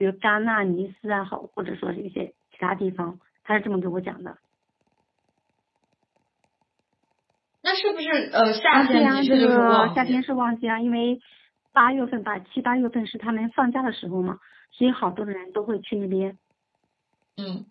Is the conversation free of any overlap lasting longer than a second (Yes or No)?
No